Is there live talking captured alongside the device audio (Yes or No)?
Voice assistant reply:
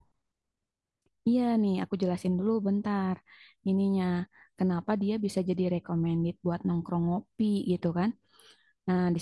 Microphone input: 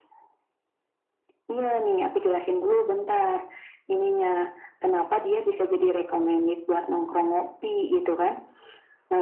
No